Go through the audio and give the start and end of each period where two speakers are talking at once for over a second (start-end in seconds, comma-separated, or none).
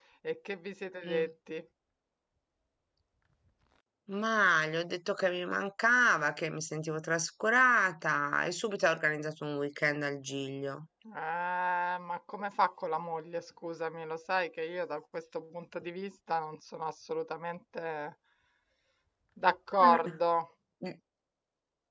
none